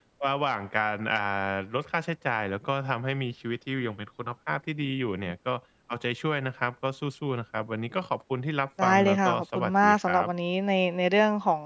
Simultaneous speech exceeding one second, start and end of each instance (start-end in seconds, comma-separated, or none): 8.8-10.3